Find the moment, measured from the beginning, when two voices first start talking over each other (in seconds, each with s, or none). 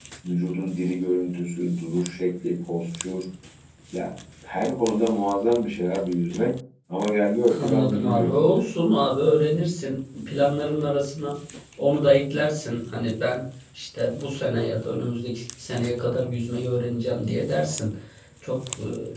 7.5 s